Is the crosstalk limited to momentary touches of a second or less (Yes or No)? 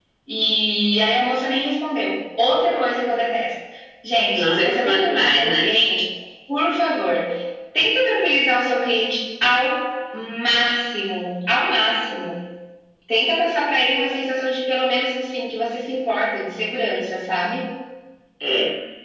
No